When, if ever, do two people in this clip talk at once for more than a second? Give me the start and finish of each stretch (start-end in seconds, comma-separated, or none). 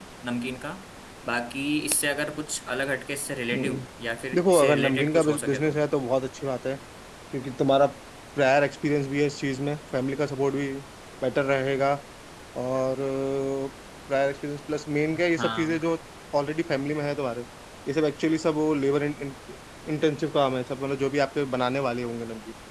4.3-5.8